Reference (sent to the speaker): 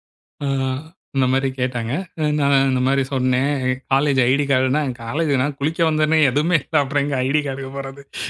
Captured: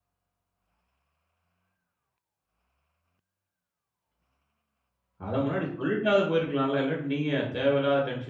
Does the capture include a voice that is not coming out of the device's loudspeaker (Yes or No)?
Yes